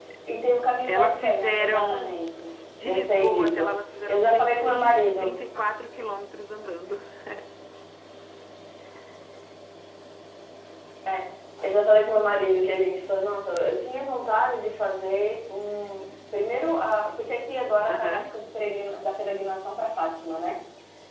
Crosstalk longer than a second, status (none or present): present